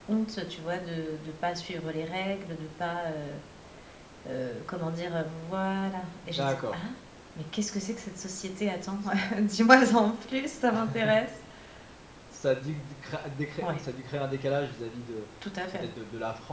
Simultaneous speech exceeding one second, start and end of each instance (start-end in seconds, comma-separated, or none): none